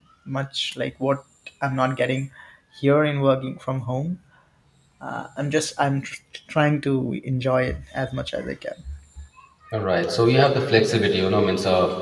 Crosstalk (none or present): none